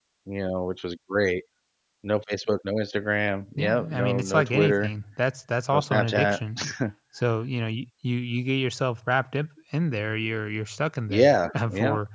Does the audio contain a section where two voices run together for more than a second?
Yes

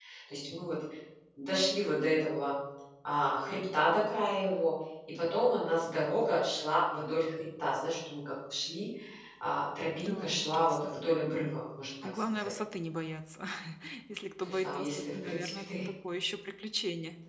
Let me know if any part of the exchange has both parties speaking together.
Yes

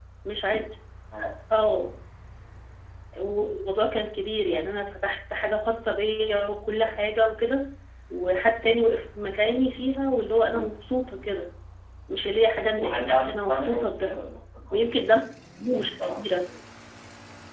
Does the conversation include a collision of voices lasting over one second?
Yes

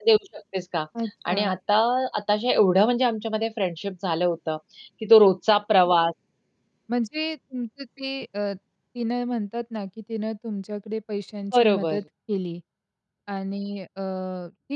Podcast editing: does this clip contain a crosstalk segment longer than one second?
No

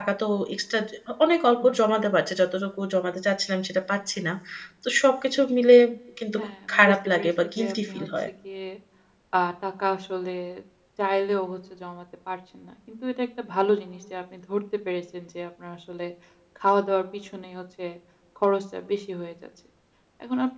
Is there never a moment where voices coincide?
No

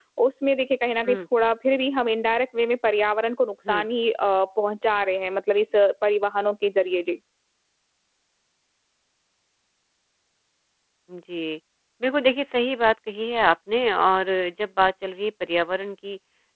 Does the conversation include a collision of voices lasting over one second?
No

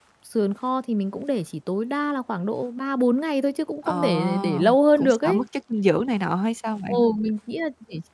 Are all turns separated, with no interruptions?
No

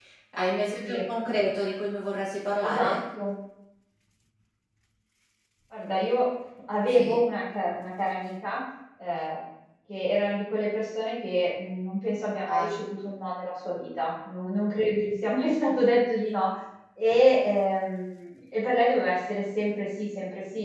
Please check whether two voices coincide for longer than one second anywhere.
No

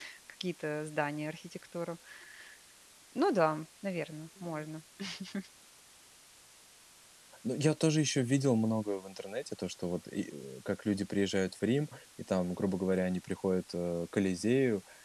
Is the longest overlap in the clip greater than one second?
No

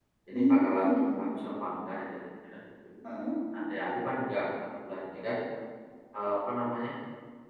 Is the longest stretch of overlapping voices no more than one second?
No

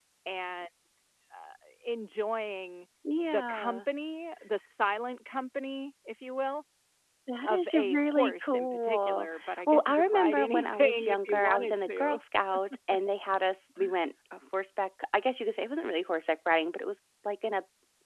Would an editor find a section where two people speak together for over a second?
Yes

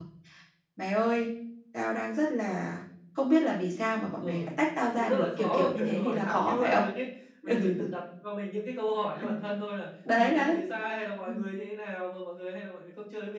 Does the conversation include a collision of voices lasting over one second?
Yes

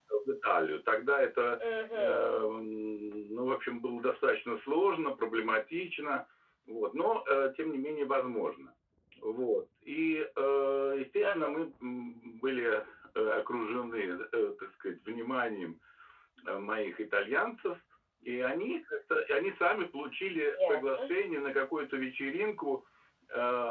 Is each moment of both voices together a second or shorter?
Yes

